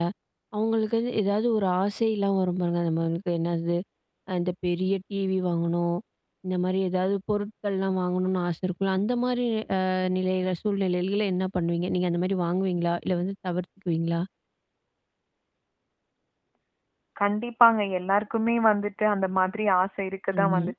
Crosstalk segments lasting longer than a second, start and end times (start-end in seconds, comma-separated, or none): none